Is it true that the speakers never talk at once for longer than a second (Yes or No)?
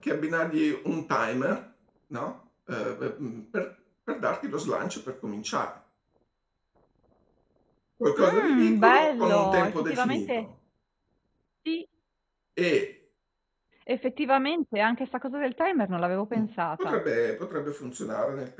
No